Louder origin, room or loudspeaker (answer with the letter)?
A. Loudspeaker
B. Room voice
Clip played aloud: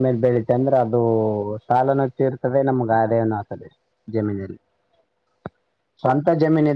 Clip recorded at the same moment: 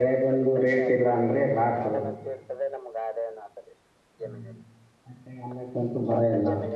B